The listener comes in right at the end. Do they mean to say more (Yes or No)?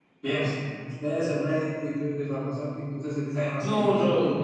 Yes